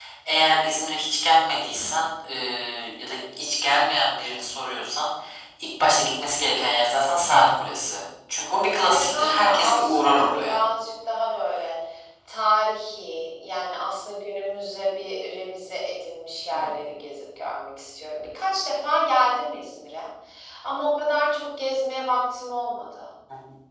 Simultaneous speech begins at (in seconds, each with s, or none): 8.9 s